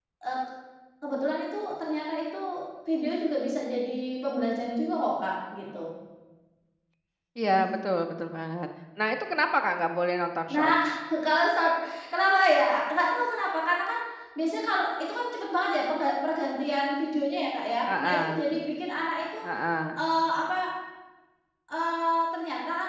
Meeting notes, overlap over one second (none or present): none